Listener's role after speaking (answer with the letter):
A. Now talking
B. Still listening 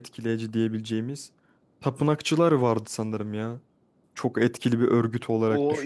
A